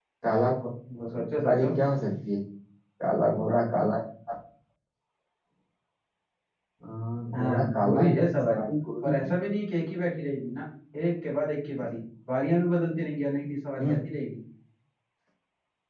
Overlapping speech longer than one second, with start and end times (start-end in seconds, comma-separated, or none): 7.3-8.7